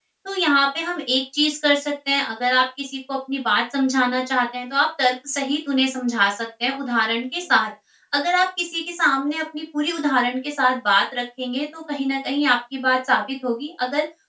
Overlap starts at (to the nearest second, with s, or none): none